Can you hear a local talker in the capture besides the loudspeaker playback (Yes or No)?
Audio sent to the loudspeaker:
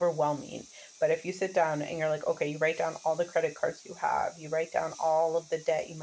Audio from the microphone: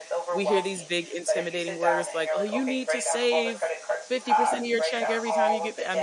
Yes